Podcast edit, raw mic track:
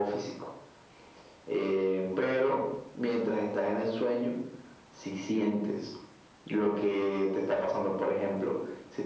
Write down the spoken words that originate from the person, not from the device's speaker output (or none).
none